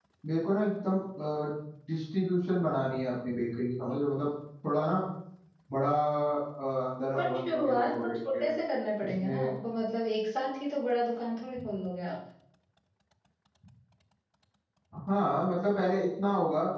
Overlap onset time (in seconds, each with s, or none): 7.1 s